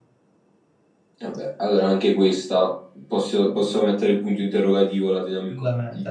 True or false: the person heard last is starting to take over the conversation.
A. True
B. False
A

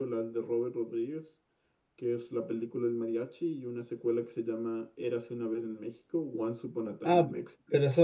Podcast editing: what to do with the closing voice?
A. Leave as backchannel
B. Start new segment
B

